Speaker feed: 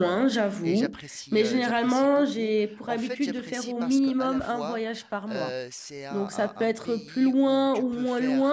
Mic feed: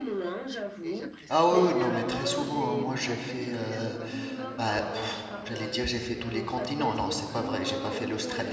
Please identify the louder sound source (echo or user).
user